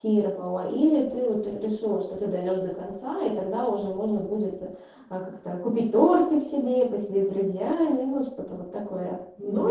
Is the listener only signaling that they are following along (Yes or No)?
No